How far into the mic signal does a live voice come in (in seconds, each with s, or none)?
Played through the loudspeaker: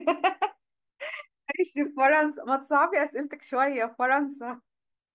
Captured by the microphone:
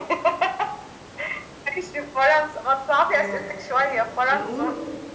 3.1 s